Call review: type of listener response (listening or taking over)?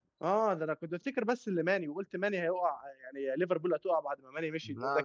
listening